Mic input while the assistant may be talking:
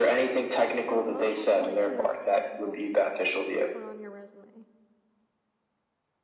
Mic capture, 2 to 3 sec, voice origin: both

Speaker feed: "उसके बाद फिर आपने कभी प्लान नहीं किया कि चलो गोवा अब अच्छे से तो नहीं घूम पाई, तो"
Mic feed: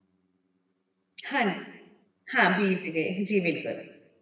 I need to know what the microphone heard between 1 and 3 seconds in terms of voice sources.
user only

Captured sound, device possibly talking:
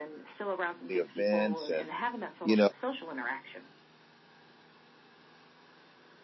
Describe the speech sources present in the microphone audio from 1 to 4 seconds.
both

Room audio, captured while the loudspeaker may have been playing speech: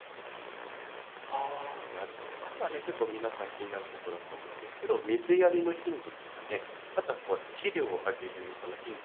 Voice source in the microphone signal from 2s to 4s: user only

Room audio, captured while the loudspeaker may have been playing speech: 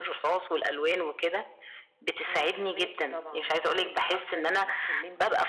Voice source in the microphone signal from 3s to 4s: echo only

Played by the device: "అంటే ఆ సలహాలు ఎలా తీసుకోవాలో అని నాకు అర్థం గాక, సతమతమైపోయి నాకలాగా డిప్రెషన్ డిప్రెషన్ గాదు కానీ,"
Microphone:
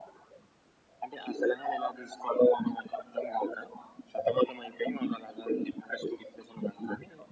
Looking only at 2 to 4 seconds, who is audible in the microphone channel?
echo only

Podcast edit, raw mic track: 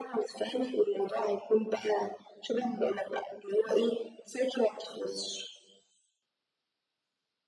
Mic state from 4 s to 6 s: echo only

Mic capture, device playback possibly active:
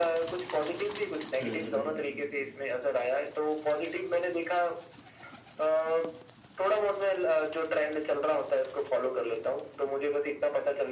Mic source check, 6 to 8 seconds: echo only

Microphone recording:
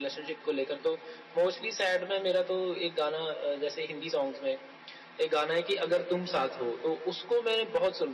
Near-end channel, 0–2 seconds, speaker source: echo only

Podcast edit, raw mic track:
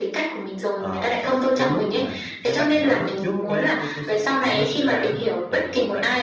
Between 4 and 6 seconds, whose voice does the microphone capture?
both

